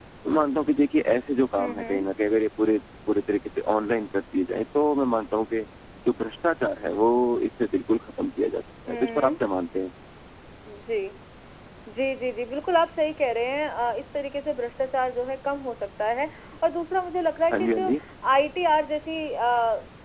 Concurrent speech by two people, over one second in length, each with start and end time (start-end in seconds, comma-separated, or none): none